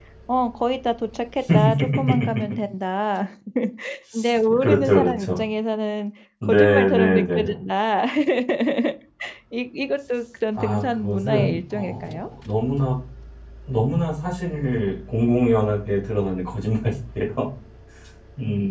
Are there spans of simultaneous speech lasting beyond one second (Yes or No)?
Yes